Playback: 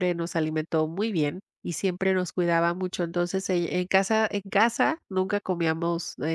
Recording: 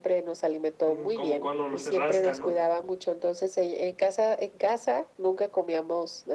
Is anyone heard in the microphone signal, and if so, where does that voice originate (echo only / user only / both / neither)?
both